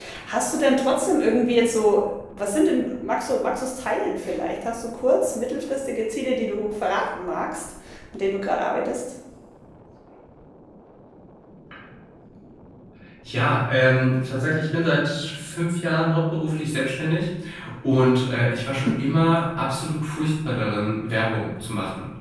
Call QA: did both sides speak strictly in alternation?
Yes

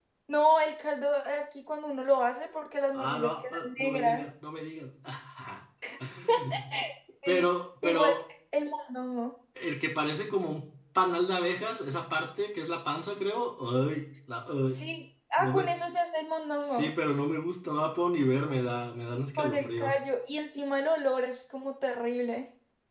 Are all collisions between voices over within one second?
No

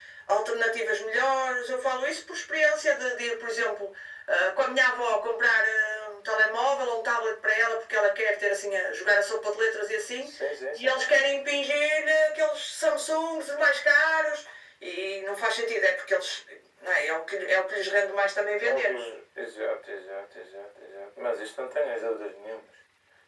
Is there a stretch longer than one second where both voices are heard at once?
No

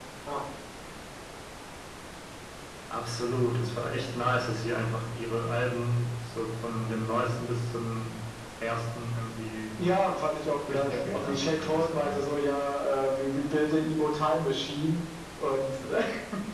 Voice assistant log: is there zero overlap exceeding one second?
No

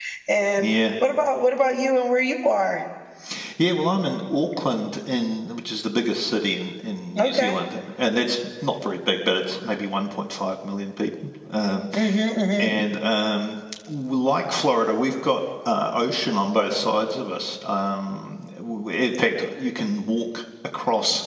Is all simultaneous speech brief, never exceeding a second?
Yes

